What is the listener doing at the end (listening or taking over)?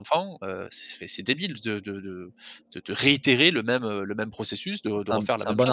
taking over